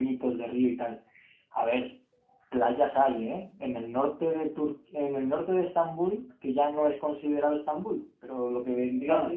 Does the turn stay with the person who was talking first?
Yes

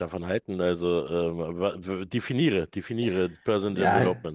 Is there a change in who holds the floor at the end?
Yes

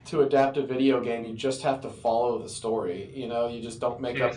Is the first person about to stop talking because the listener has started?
No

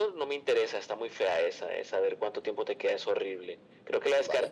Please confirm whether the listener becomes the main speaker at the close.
No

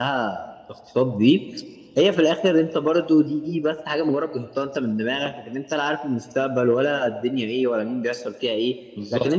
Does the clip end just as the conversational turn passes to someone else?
No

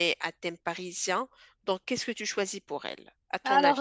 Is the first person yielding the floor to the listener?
Yes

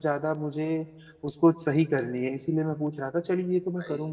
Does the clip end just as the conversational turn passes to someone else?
No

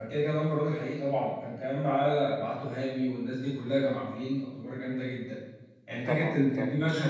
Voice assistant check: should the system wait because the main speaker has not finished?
Yes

